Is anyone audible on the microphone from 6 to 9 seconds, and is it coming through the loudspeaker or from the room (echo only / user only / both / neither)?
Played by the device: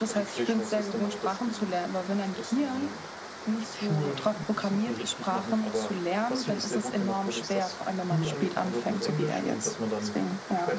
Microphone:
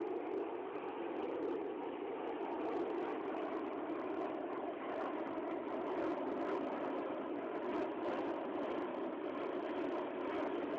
neither